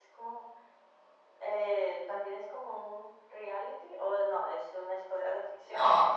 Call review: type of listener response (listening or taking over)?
taking over